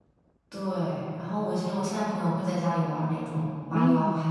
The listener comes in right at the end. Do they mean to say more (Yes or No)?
Yes